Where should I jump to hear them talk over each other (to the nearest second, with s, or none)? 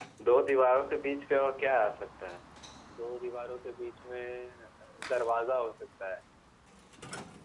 none